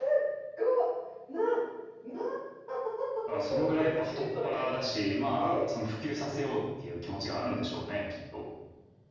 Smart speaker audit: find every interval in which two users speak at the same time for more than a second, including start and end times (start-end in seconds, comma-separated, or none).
3.4-4.7